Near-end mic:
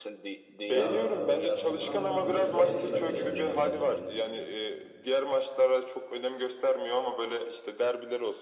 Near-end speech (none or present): present